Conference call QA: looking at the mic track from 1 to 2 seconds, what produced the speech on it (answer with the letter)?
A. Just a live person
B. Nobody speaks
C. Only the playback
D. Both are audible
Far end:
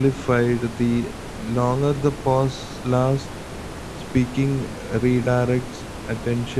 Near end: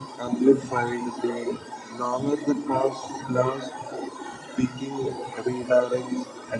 C